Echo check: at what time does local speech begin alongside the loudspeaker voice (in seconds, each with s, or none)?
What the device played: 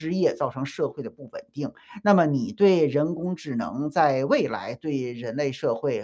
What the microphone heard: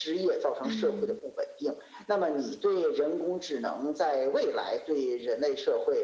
0.6 s